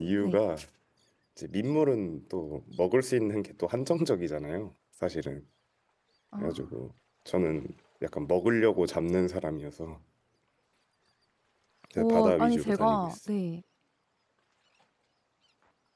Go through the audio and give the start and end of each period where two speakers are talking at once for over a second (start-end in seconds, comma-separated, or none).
12.0-13.2